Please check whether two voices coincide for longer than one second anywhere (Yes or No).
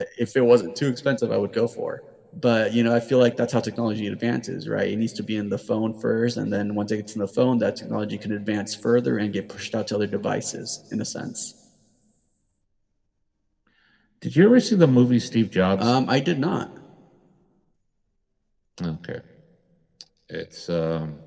No